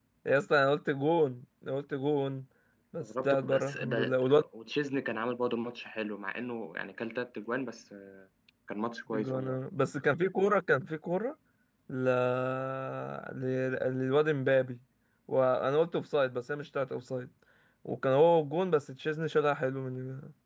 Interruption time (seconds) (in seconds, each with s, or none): 3.0 s